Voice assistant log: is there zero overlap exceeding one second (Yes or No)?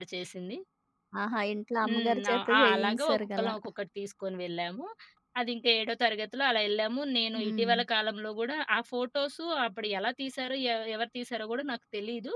No